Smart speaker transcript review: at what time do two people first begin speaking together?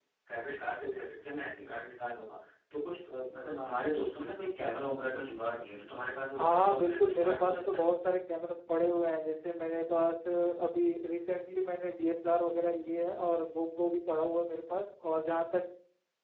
6.4 s

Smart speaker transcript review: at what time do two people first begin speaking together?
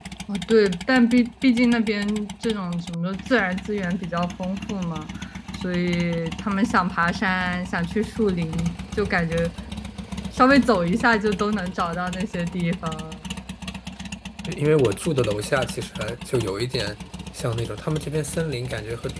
none

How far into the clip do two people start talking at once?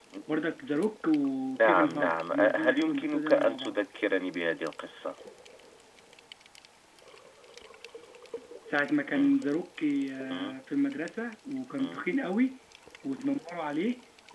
1.6 s

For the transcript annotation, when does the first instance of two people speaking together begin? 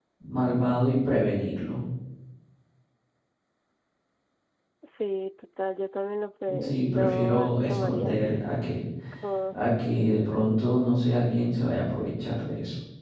6.5 s

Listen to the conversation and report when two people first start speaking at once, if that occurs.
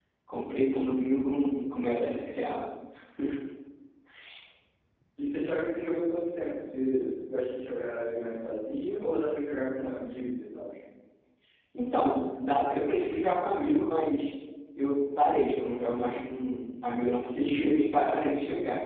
none

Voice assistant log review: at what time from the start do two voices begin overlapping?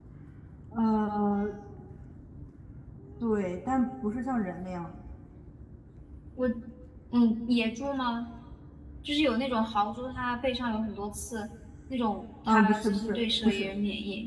12.5 s

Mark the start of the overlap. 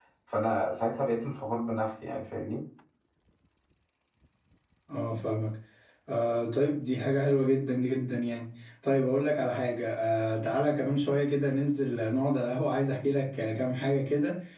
none

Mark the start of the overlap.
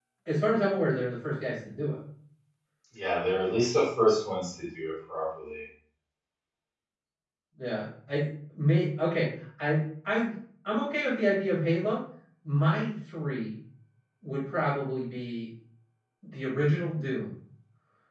none

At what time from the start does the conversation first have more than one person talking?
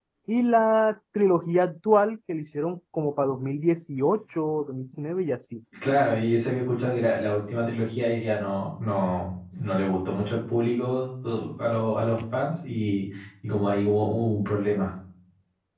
none

